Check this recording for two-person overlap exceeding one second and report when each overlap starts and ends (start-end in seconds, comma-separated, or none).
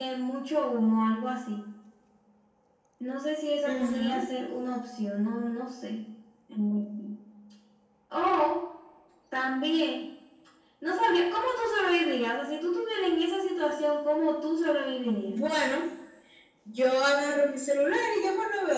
none